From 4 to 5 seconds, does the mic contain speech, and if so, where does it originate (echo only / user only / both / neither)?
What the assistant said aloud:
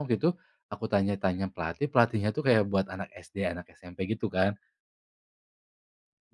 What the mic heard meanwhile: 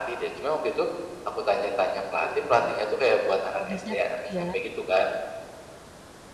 both